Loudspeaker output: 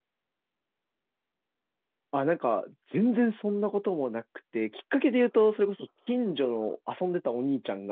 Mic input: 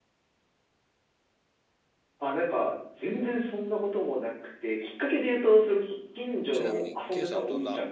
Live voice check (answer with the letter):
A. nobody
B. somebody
B